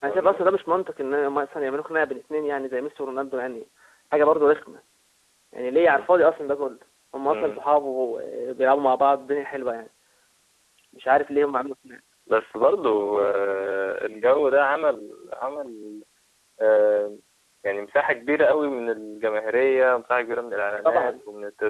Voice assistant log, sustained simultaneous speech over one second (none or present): none